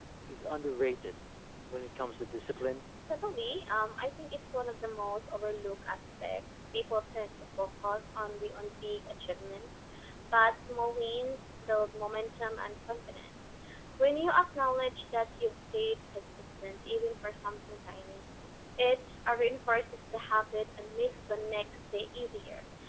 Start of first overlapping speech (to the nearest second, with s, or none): none